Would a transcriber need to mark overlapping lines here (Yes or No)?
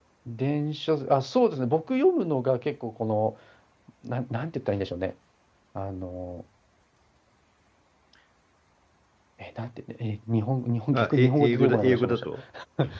Yes